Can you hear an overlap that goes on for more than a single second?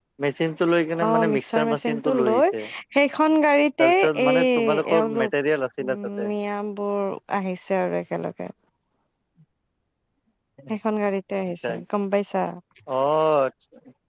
Yes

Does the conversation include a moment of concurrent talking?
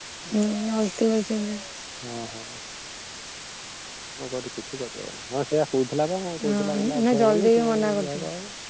Yes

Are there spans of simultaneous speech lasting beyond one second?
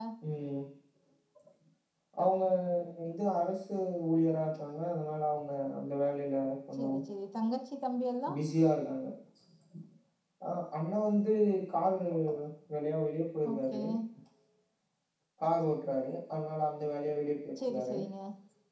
No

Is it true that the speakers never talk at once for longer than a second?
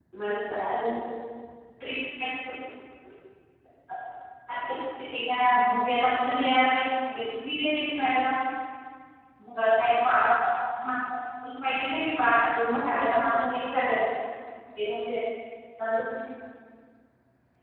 No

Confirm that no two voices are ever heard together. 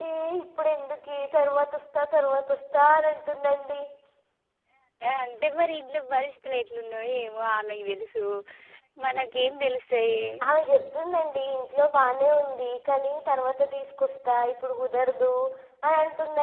Yes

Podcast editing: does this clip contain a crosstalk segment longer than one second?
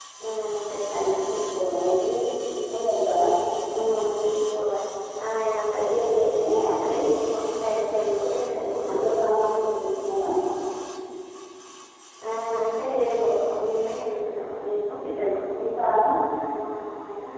No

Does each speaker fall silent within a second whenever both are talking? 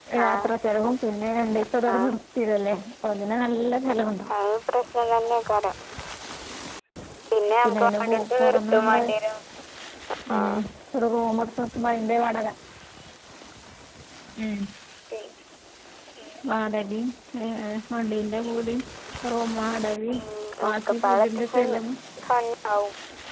No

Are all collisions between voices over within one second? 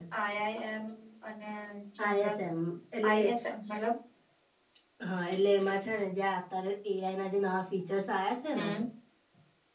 Yes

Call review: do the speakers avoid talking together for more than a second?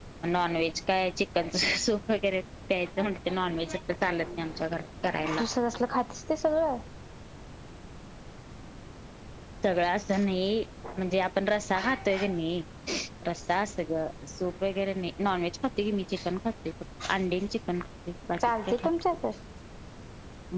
Yes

